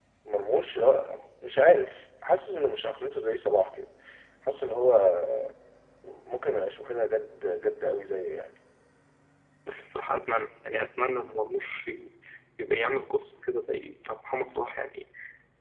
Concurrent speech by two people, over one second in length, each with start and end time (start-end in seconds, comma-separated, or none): none